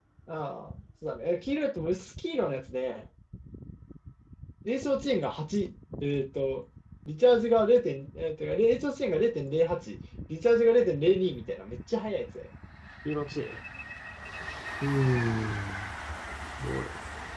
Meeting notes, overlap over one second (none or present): none